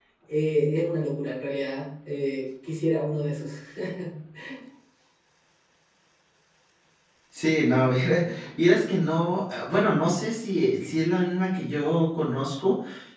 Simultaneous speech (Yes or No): No